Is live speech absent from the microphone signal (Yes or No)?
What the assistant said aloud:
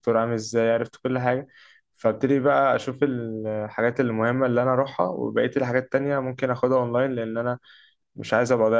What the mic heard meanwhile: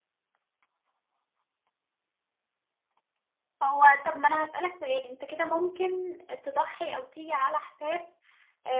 No